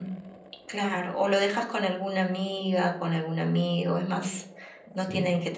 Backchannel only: Yes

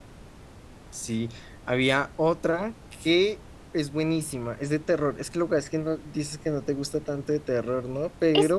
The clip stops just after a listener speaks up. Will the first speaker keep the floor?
No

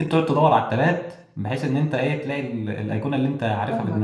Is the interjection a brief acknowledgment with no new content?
No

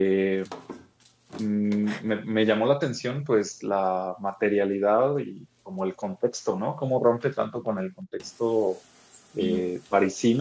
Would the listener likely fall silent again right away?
Yes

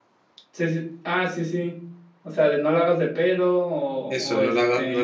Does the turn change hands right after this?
Yes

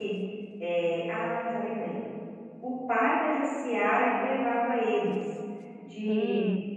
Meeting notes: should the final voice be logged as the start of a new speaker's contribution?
No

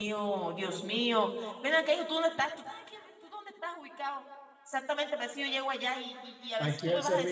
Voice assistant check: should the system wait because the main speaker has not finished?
No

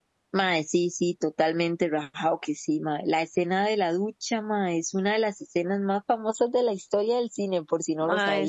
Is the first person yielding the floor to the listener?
Yes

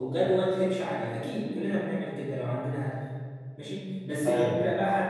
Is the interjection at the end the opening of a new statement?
No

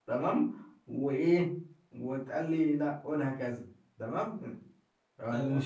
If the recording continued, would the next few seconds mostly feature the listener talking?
Yes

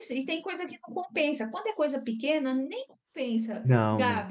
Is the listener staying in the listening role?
Yes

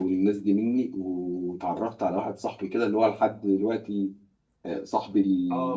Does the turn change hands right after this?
Yes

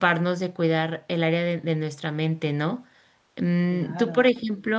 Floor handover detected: No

